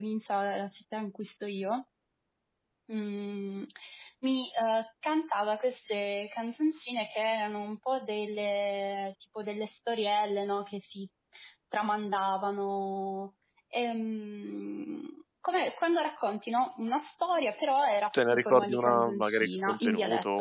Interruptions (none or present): present